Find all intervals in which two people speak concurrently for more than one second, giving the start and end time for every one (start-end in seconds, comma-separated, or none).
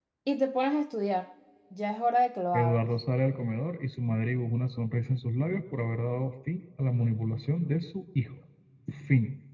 none